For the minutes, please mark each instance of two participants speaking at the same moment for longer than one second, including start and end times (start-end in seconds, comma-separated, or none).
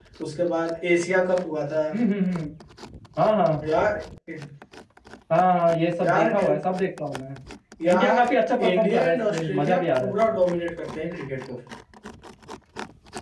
8.7-10.3